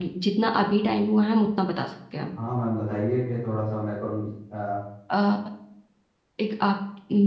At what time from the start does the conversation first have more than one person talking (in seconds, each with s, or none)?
none